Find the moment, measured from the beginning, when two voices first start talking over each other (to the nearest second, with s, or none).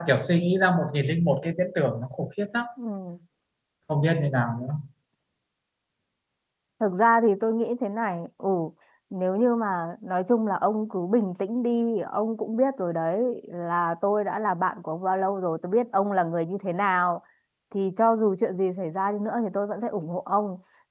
none